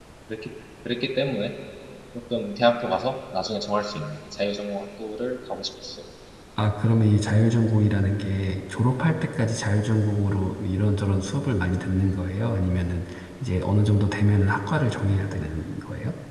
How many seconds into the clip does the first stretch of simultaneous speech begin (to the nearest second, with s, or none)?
none